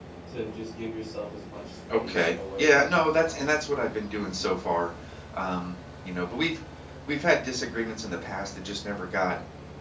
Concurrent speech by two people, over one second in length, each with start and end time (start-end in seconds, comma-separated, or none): 1.9-3.4